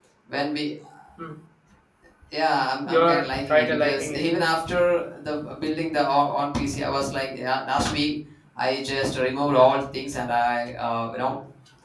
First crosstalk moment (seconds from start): 2.9 s

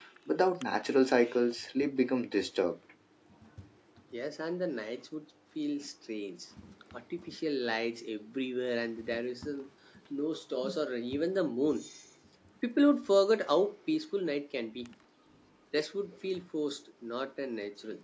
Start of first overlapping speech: none

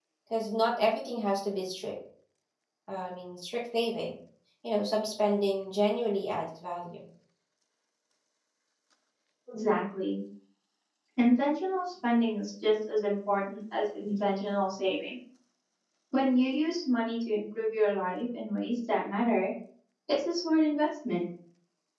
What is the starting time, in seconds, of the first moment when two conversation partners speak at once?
none

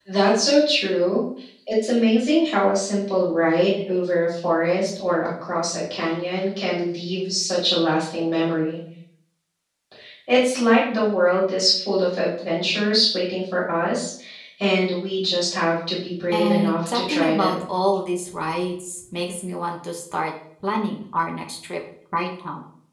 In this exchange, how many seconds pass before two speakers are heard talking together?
16.3 s

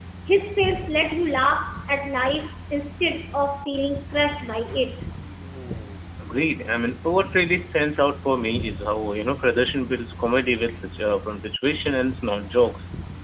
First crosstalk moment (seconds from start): none

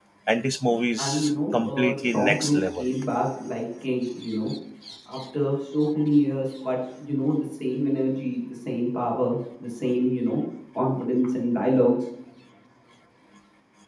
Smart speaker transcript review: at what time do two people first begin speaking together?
1.0 s

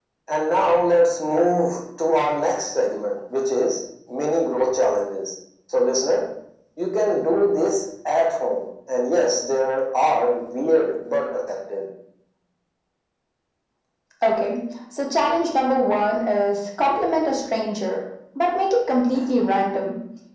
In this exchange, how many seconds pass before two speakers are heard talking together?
none

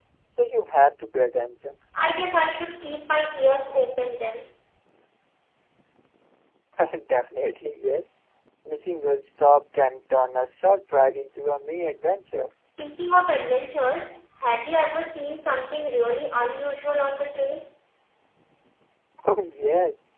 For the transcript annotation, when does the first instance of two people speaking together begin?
none

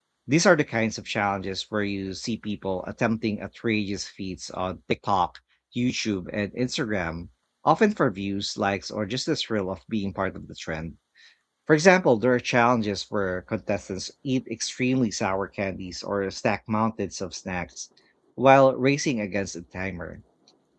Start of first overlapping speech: none

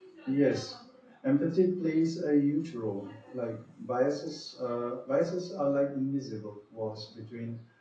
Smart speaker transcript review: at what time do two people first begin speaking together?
none

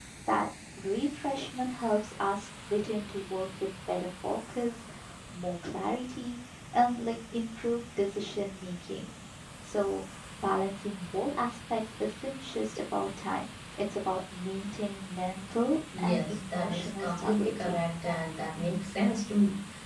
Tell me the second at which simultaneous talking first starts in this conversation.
15.9 s

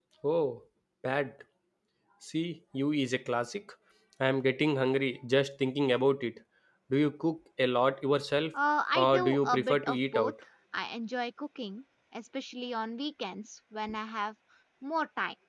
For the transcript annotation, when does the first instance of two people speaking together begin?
8.9 s

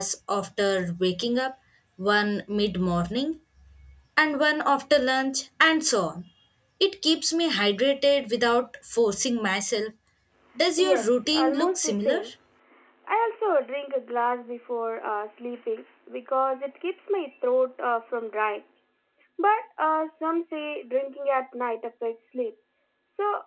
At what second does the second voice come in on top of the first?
10.8 s

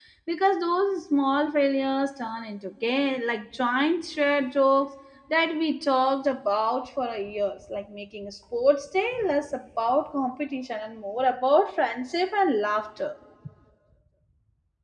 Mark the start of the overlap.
none

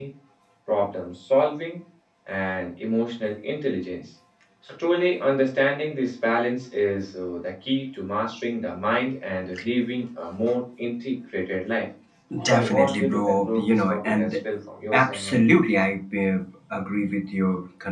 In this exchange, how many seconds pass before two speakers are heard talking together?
12.5 s

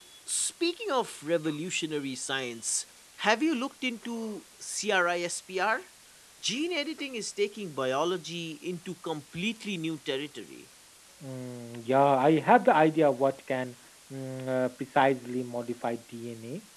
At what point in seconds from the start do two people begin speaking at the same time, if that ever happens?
none

